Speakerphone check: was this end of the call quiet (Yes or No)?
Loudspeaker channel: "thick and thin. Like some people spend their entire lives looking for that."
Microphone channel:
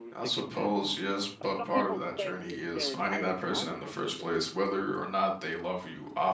No